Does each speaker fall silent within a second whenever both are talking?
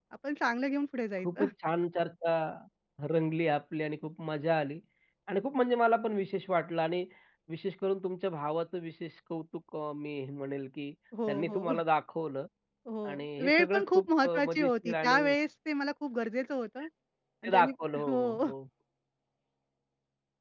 No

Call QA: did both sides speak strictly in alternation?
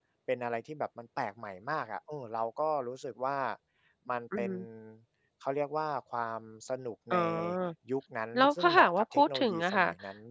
No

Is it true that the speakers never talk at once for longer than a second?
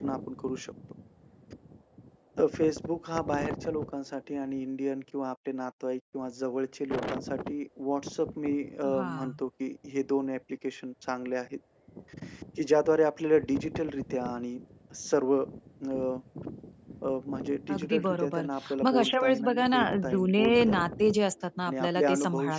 No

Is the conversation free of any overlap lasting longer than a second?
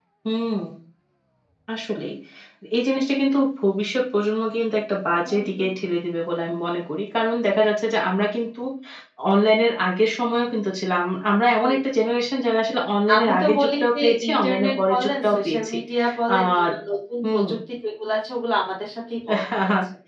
No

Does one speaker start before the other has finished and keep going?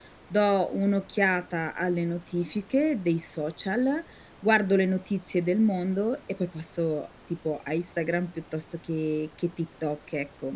No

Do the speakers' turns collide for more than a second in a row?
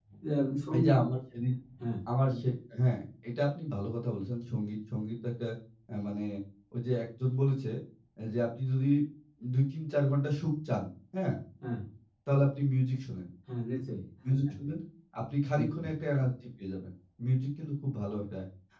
No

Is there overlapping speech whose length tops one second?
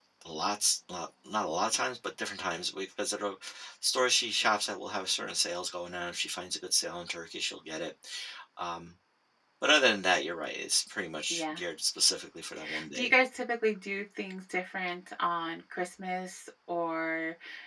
No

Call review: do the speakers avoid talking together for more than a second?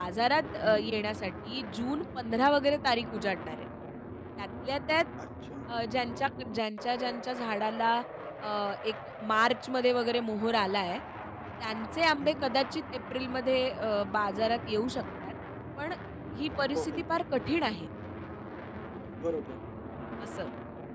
Yes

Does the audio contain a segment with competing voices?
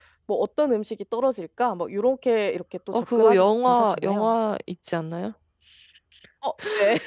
Yes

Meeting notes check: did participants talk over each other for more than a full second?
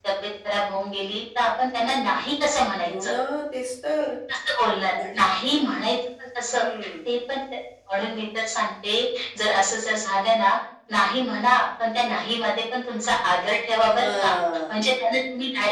No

